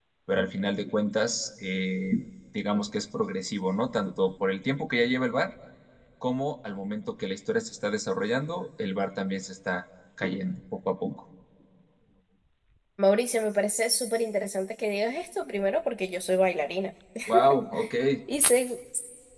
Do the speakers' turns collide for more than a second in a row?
No

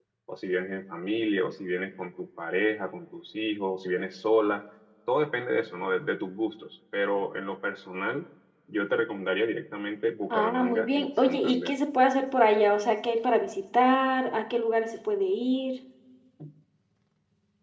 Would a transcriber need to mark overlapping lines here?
Yes, from 10.3 s

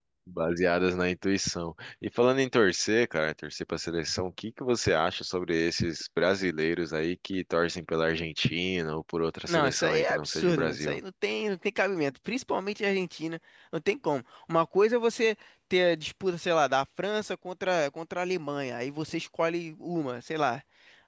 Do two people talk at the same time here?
Yes, from 9.5 s

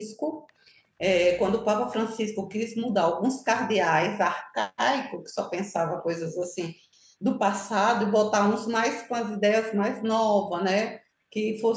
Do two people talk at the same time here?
No

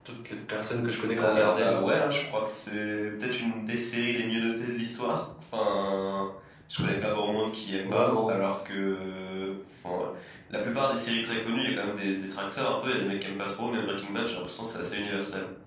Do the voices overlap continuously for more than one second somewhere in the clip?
No

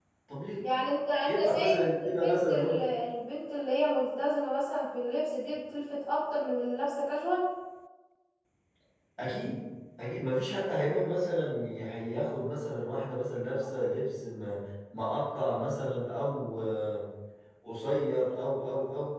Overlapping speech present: Yes, from 1.2 s

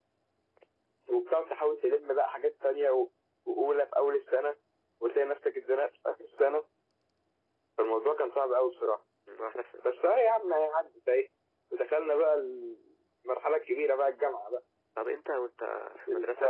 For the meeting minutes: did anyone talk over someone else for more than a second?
No

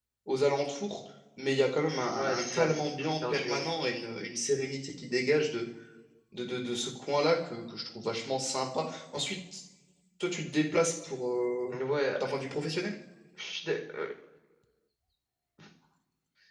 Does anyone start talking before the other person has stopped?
Yes, from 2.2 s

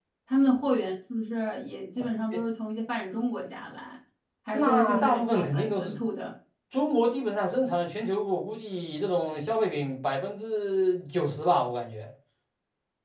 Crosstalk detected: Yes, from 4.5 s

